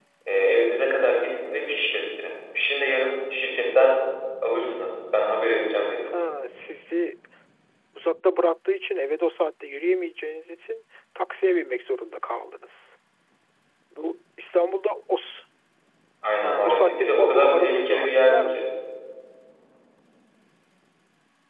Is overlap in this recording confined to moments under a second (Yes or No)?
No